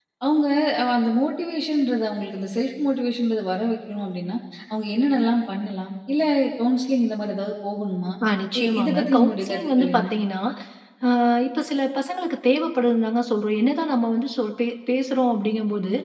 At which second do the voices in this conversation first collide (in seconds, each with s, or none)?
8.6 s